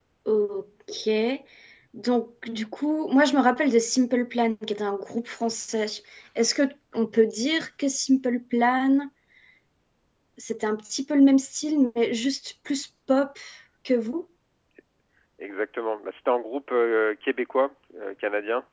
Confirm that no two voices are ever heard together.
Yes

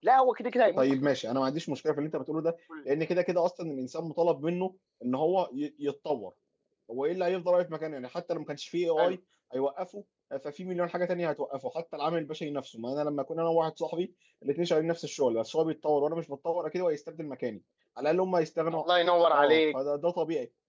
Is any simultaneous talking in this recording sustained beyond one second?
No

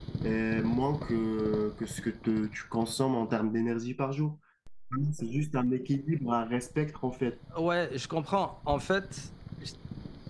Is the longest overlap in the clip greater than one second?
No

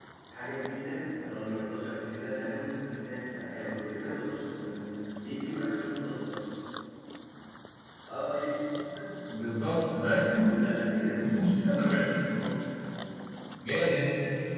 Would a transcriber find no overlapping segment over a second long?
Yes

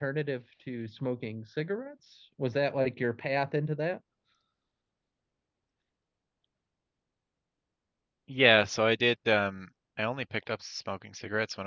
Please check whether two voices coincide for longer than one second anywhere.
No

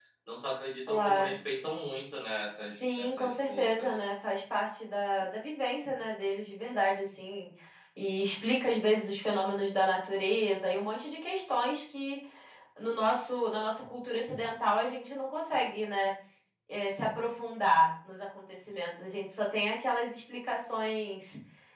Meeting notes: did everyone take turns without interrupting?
No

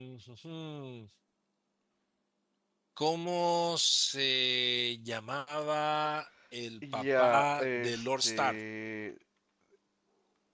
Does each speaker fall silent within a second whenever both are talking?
No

